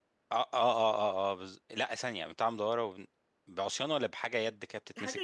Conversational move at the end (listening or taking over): taking over